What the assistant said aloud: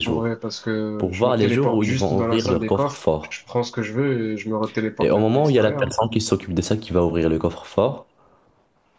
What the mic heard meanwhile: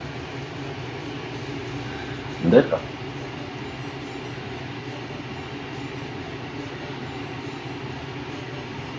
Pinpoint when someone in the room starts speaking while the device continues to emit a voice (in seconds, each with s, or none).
2.4 s